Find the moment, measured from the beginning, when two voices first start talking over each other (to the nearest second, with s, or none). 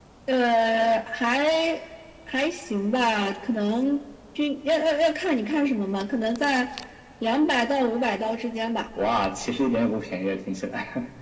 none